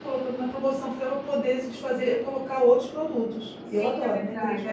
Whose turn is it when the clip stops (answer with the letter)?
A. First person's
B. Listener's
B